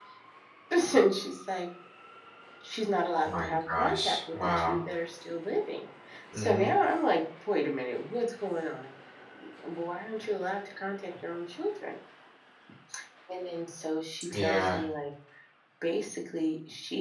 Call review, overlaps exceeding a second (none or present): present